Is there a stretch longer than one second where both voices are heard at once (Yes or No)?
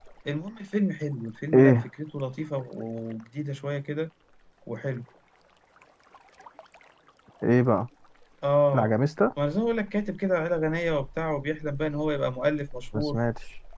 No